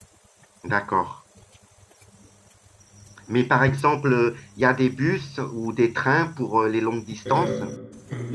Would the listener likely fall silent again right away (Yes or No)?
No